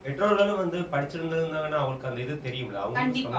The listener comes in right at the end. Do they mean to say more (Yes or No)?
Yes